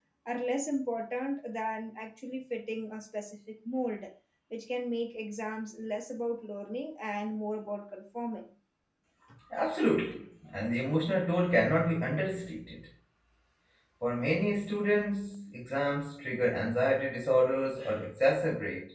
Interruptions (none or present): none